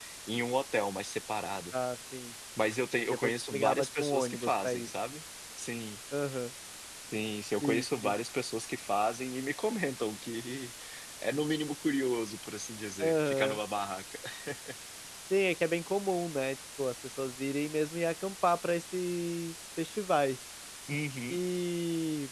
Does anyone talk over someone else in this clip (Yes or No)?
Yes